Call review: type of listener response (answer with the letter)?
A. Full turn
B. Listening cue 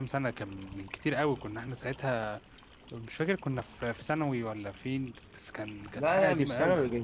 A